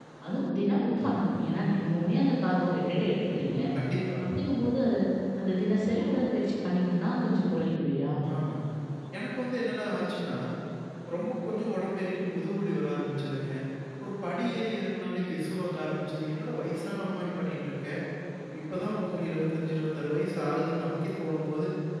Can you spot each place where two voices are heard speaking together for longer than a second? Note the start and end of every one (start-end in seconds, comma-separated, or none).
none